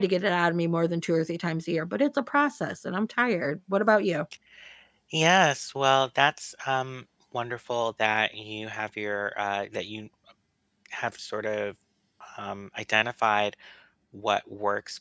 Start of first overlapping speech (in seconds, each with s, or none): none